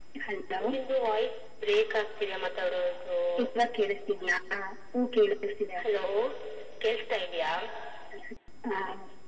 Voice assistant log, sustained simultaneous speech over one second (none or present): none